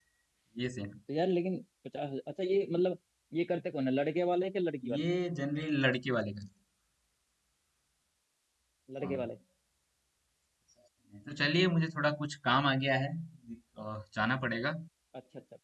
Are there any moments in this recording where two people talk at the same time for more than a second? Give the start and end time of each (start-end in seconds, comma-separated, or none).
none